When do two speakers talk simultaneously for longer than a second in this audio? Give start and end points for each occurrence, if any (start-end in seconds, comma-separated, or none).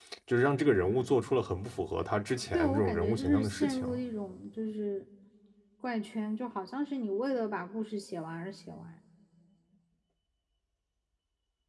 2.5-3.9